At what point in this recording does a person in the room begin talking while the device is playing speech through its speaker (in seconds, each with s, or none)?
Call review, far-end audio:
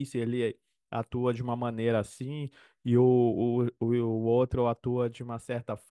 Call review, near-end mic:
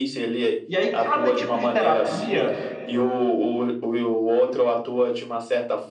0.7 s